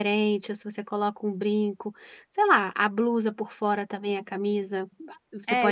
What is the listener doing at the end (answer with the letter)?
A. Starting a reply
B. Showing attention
A